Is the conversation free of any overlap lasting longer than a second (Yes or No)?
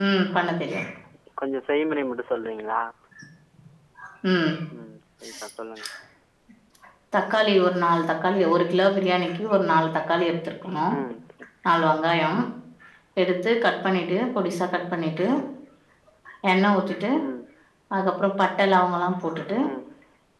Yes